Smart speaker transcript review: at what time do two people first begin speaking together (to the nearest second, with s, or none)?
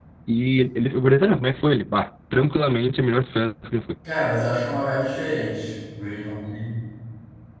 none